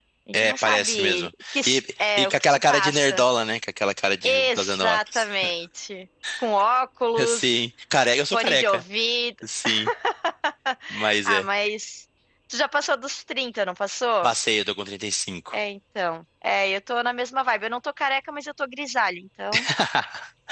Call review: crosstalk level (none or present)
present